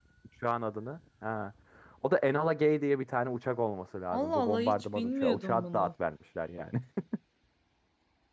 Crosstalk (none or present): present